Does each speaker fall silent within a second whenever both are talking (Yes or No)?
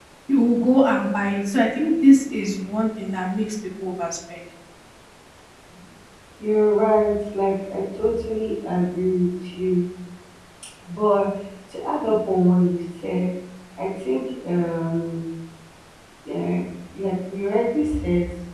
Yes